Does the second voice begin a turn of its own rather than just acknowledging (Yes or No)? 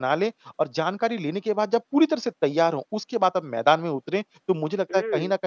No